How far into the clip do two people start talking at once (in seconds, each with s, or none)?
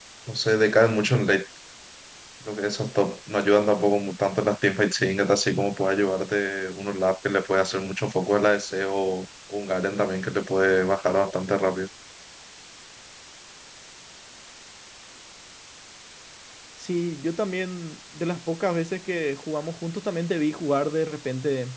none